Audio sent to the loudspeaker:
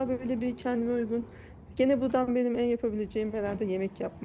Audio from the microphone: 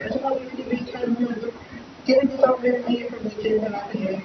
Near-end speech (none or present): none